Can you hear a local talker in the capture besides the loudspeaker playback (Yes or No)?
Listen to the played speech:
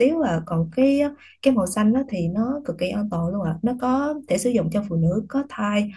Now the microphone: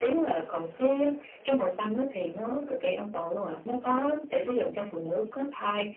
No